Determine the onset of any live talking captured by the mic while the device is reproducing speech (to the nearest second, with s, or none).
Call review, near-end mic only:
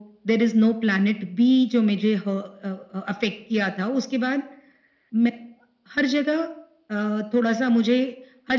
none